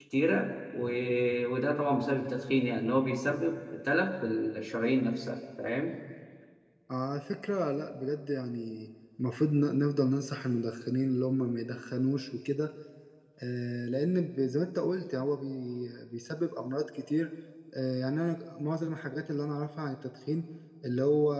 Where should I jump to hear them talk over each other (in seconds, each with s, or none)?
none